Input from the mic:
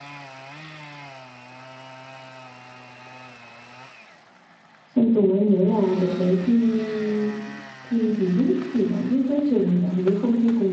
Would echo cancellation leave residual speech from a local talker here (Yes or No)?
Yes